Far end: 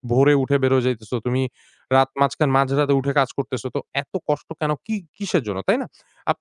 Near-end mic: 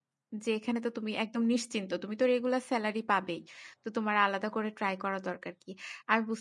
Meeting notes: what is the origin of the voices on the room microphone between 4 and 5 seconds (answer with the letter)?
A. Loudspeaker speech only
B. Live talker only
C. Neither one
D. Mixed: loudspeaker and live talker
B